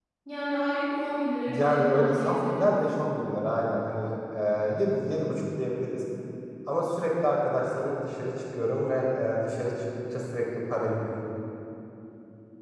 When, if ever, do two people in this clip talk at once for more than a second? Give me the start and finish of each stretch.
1.5-2.8

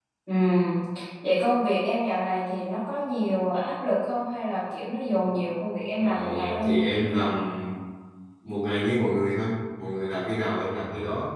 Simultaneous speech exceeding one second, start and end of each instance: 6.0-7.2

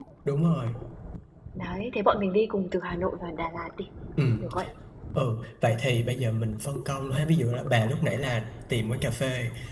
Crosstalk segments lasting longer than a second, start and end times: none

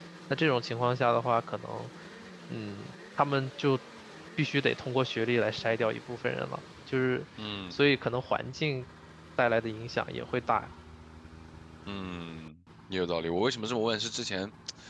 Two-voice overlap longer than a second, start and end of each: none

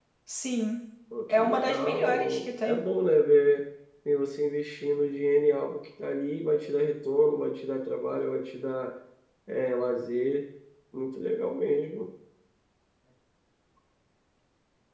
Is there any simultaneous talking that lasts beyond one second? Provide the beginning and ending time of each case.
1.3-2.8

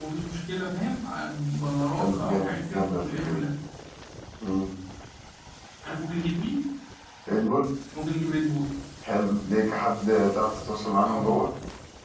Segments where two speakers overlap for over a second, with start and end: 1.9-3.4

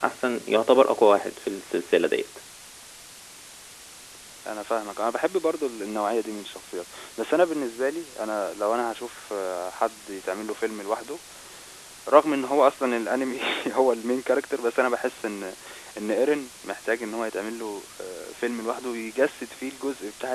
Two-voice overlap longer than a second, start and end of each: none

